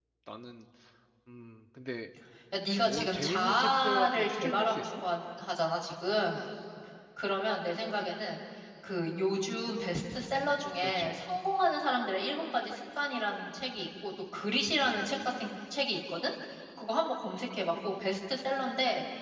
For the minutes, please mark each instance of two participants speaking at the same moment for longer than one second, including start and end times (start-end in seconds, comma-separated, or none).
2.8-4.9